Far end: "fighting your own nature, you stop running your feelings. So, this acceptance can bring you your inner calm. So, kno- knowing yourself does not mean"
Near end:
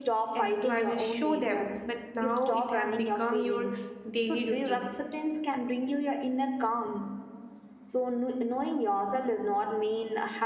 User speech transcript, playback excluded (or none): as to i will show them but now it have become your daily routine